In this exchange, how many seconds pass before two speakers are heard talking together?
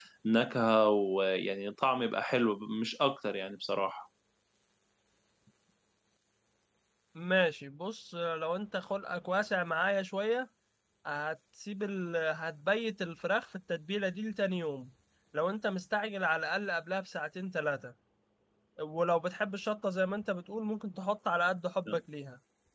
none

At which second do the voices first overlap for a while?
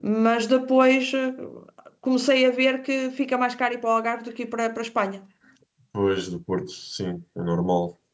none

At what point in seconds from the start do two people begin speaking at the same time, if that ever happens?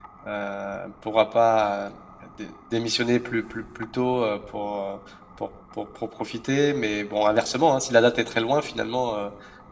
none

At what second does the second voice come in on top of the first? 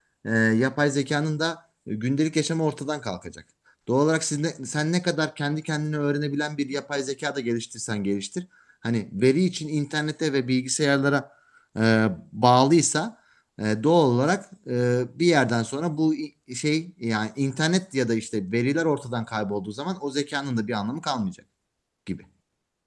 none

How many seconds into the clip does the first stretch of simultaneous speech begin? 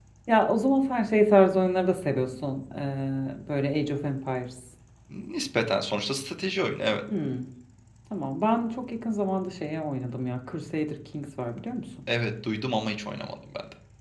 none

